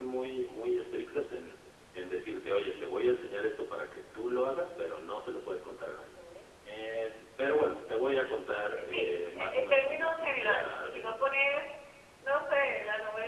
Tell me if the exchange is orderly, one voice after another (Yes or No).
No